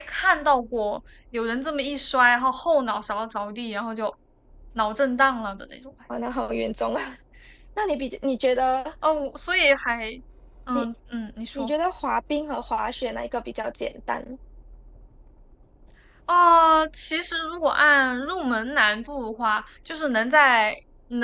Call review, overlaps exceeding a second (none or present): none